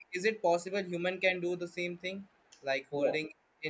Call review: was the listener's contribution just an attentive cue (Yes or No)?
Yes